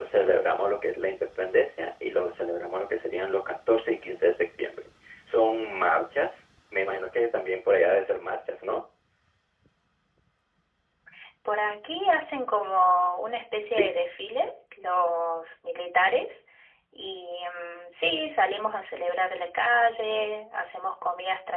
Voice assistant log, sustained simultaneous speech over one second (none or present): none